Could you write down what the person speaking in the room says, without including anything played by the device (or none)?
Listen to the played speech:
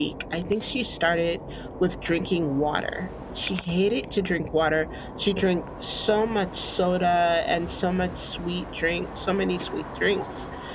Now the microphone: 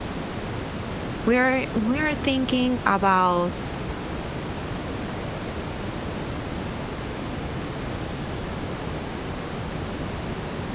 we're we're thinking about